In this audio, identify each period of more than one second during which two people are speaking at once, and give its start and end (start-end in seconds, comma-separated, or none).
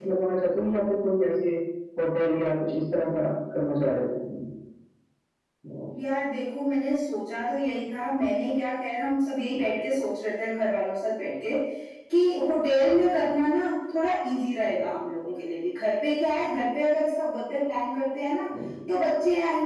none